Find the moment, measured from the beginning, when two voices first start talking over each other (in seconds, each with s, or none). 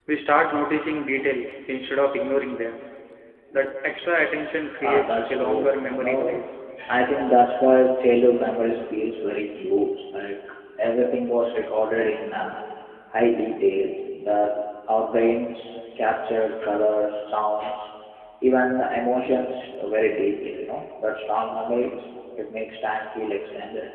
4.8 s